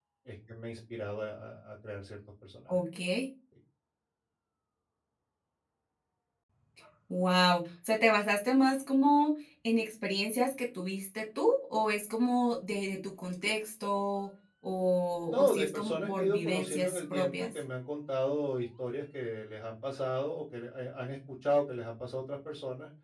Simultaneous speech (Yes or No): Yes